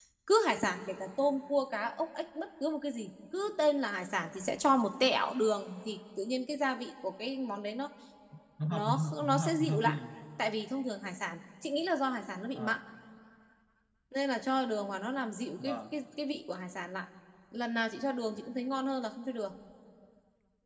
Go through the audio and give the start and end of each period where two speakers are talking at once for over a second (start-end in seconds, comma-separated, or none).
8.7-10.0